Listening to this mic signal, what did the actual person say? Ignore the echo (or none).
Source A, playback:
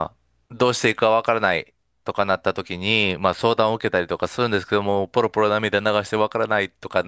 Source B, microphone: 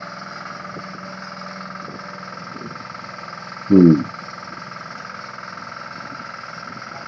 うん、